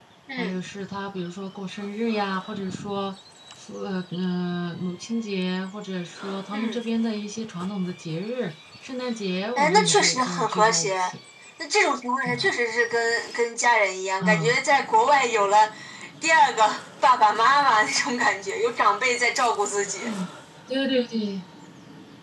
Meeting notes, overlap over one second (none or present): present